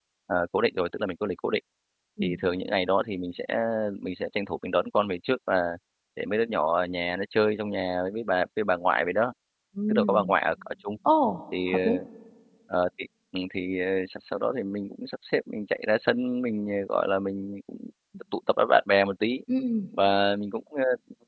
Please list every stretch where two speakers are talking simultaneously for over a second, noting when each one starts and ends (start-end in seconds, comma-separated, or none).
none